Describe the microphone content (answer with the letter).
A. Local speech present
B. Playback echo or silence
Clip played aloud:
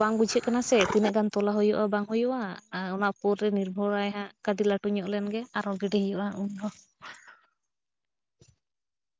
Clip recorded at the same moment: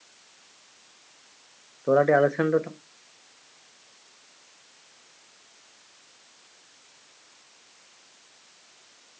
A